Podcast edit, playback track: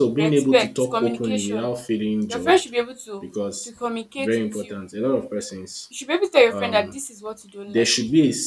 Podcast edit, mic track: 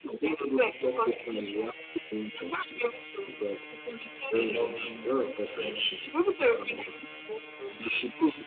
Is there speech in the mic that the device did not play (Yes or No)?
Yes